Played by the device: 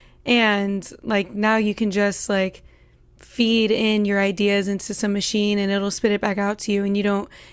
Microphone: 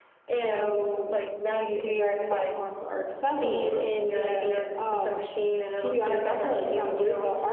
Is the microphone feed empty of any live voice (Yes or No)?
No